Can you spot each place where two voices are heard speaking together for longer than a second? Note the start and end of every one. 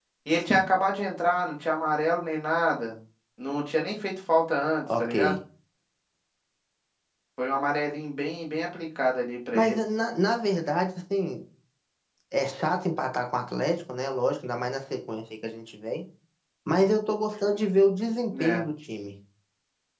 none

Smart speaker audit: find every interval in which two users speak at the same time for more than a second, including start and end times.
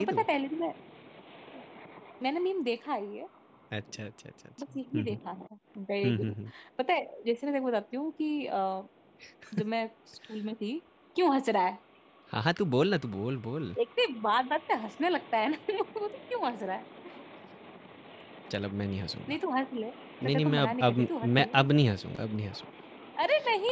20.2-21.7

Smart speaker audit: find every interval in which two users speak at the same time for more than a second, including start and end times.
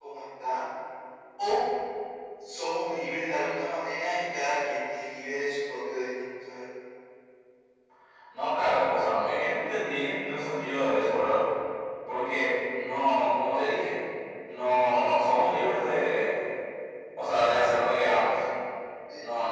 none

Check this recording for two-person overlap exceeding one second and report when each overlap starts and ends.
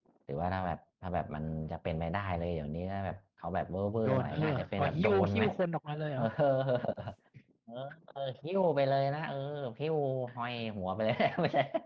4.0-5.5

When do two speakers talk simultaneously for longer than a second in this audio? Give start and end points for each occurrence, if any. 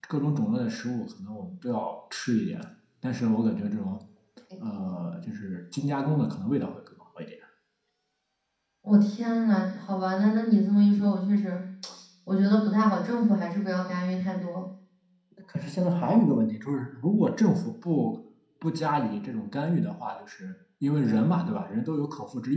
none

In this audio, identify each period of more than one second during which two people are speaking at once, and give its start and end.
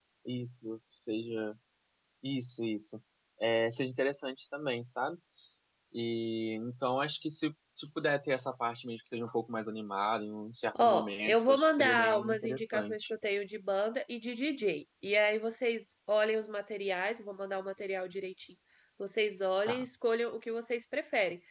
10.8-13.1

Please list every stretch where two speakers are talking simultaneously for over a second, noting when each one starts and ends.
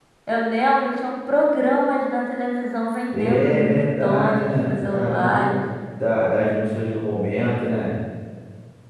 3.1-5.5

